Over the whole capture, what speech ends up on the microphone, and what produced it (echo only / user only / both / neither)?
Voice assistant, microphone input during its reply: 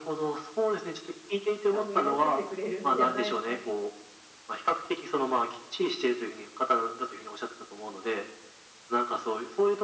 both